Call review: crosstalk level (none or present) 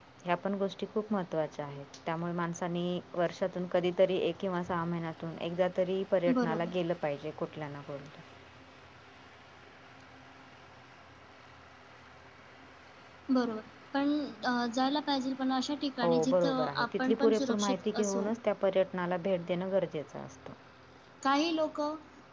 present